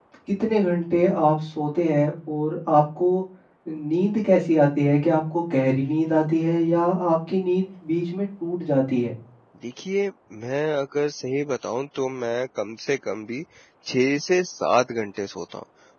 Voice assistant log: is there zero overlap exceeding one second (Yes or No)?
Yes